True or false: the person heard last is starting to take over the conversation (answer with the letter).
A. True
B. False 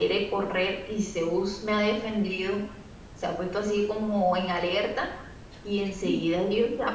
B